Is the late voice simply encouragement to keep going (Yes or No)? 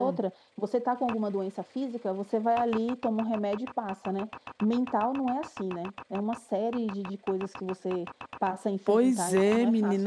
No